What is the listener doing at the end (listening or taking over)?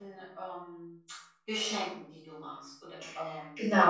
taking over